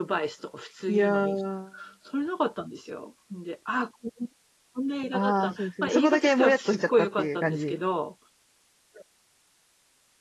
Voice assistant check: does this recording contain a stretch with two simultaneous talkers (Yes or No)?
Yes